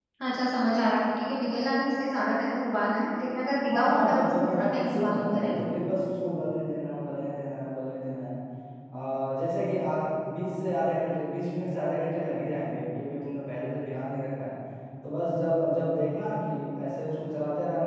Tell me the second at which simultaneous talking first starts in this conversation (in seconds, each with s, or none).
3.7 s